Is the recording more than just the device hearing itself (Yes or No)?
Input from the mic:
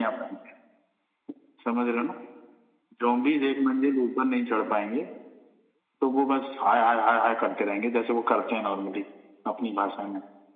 No